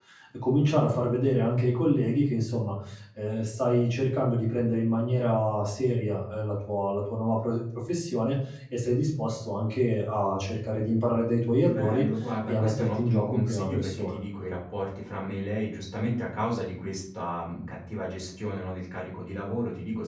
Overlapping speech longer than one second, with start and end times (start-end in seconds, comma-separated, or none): 12.5-14.2